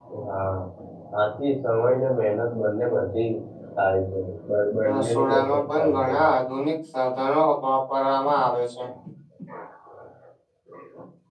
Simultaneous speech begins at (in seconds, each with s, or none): 4.9 s